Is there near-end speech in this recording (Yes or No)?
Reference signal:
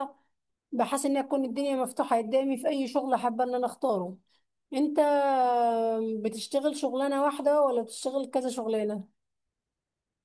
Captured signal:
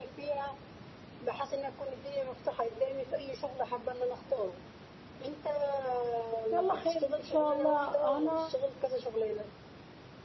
Yes